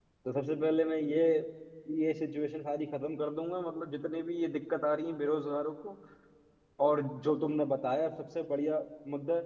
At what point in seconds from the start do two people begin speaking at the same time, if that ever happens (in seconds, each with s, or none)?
none